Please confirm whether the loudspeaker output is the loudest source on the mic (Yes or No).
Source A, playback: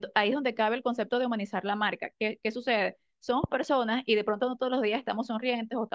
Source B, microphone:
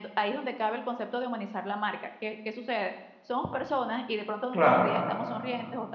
No